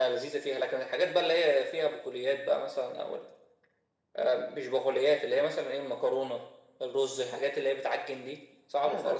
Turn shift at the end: Yes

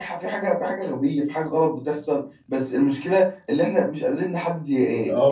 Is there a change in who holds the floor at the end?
Yes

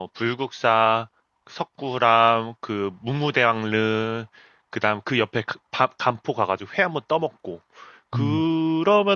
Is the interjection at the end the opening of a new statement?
No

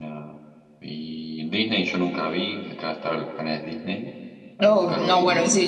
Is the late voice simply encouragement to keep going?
No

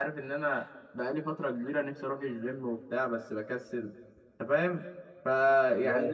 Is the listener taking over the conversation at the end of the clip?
No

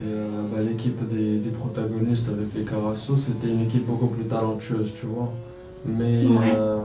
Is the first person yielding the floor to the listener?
No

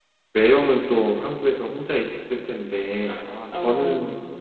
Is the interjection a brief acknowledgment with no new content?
Yes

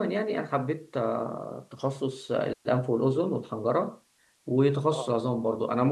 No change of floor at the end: Yes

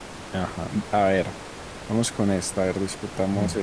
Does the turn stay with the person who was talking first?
Yes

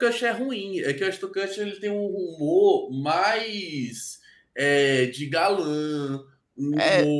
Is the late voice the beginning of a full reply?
Yes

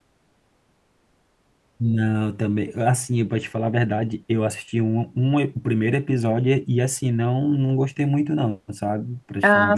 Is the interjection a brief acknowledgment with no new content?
No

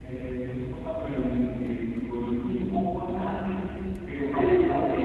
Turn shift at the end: No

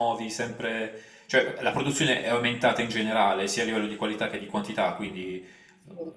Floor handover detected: No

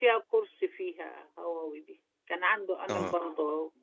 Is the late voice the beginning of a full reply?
No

